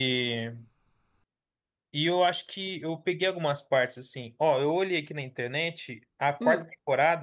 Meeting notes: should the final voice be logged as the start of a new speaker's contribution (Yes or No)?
No